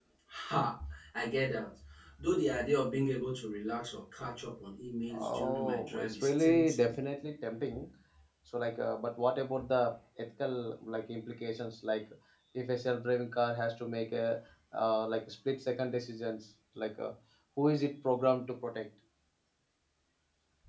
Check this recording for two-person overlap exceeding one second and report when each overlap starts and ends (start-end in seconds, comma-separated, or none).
5.1-7.0